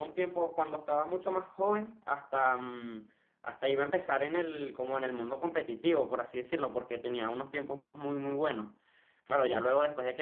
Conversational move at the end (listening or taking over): listening